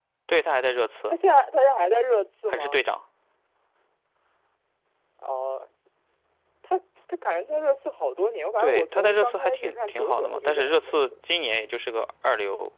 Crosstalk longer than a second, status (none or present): present